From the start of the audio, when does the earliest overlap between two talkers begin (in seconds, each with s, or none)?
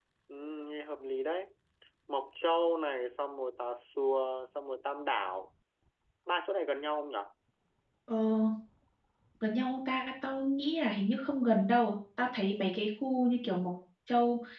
none